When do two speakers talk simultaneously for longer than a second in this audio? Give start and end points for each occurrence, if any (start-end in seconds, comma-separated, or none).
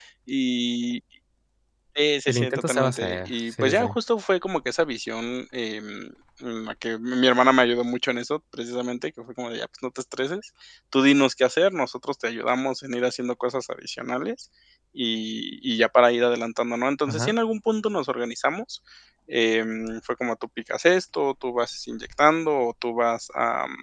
2.3-4.0